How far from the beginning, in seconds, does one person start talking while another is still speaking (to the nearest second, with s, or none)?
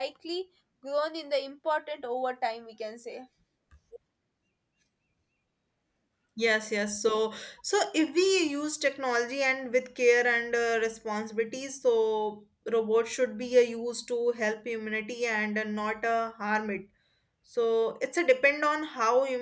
none